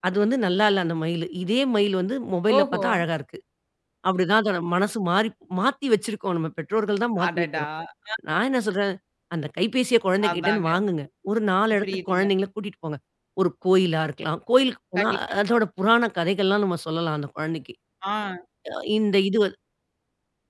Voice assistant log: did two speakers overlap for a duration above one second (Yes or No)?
No